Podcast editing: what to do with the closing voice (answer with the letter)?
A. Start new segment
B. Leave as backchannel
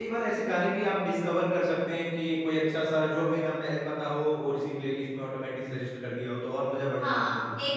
A